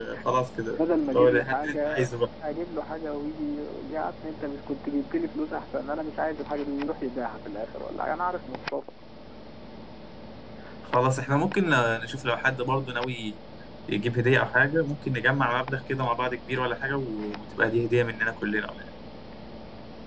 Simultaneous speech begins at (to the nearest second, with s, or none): 1 s